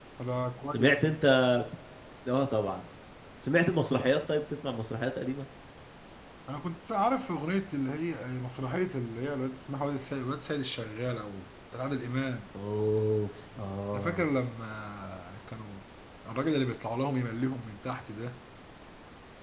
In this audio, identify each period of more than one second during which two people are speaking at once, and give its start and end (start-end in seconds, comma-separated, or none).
none